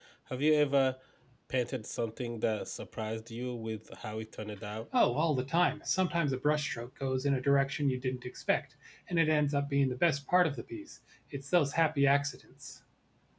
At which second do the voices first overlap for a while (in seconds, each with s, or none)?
none